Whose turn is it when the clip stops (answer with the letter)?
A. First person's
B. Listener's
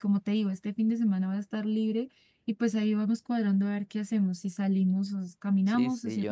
B